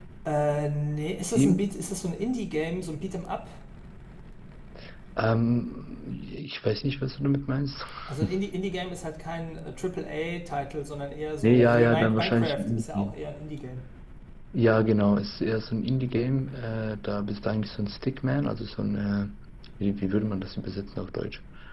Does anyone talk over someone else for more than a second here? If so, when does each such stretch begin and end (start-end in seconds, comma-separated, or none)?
11.4-13.1